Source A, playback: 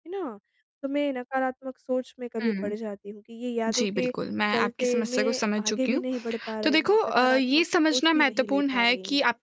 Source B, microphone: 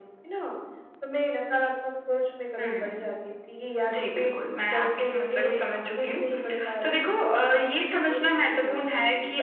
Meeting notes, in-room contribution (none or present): none